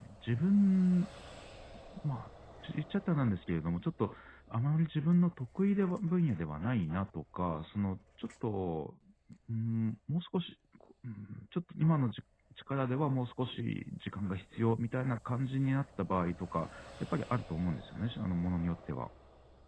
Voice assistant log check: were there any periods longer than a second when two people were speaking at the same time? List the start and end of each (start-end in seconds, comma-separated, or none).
none